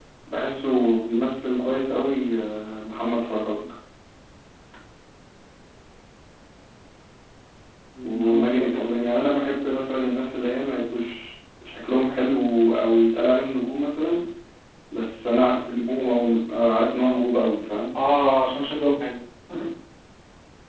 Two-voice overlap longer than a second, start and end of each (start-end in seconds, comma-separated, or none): 8.0-9.2